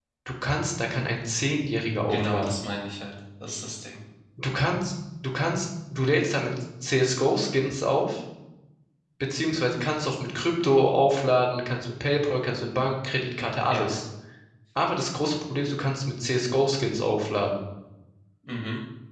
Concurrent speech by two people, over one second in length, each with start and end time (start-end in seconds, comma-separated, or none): none